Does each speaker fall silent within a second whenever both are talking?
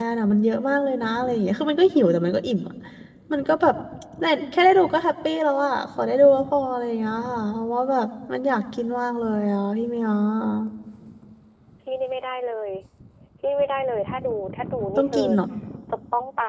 Yes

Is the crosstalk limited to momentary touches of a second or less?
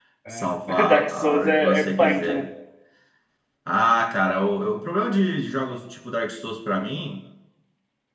No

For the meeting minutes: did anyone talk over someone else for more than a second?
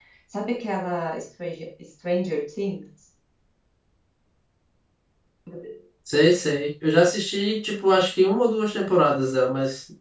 No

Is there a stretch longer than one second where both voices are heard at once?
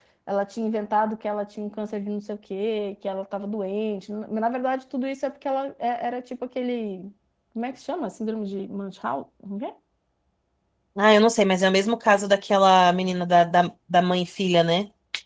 No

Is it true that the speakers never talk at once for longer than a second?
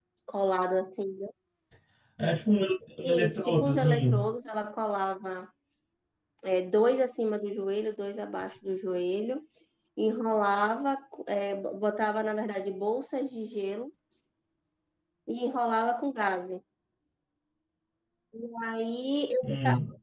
No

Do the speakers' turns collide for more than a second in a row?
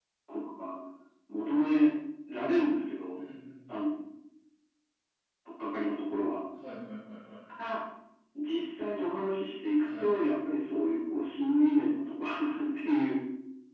No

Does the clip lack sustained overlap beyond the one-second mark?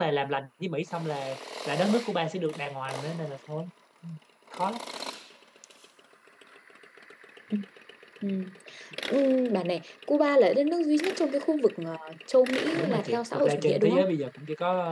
No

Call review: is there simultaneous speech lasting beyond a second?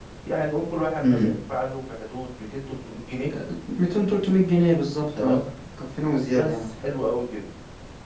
No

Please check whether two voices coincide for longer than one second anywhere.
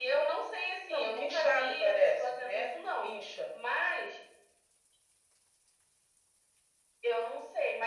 Yes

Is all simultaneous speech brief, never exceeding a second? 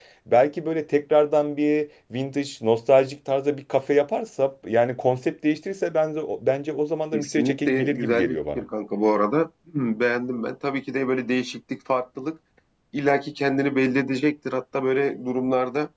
No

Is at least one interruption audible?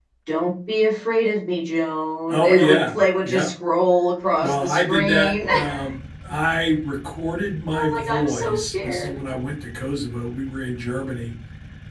Yes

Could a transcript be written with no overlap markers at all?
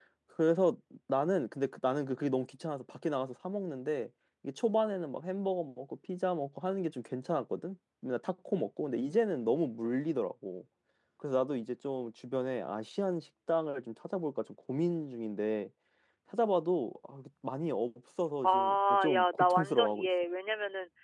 No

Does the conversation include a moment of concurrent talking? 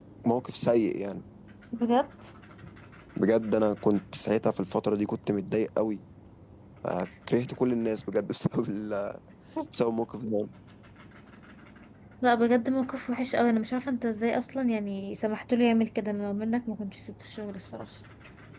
No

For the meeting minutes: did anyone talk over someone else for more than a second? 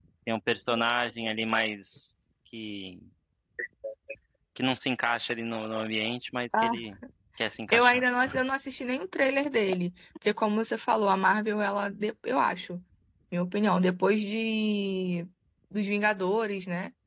No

